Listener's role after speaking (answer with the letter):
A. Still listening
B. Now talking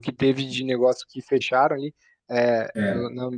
A